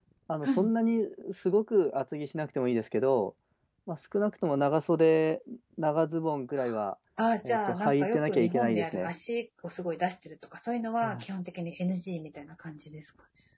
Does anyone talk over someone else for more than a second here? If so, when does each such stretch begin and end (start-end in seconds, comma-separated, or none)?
7.5-9.1